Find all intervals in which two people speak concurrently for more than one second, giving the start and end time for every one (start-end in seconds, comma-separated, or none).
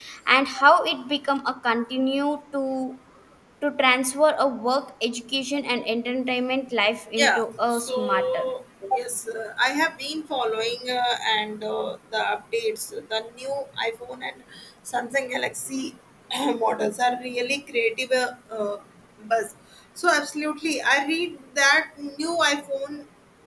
7.2-8.4